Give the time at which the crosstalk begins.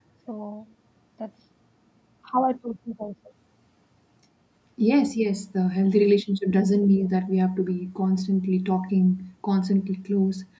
none

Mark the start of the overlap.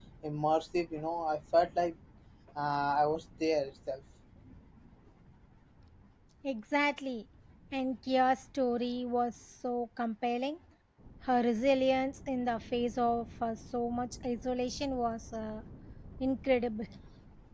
none

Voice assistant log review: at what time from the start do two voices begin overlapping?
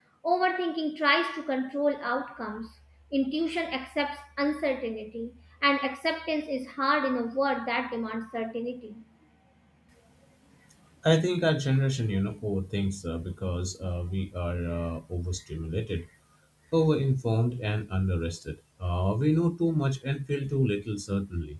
none

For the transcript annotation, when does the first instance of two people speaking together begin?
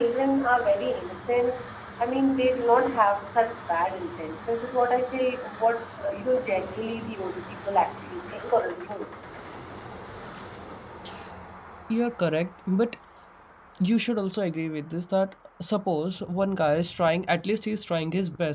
none

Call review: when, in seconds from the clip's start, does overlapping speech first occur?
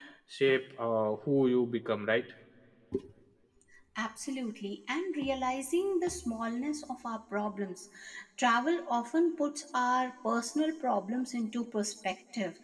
none

